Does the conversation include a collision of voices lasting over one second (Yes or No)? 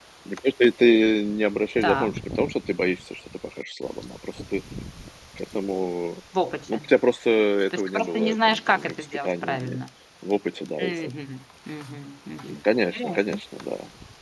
Yes